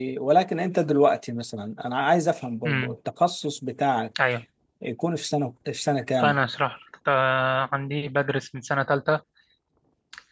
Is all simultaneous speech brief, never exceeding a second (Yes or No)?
Yes